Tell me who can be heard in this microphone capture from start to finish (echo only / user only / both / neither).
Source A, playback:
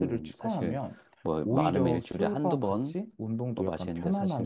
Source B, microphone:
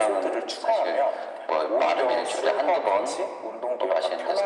echo only